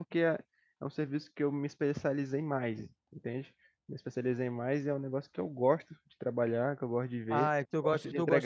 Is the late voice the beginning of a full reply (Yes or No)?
Yes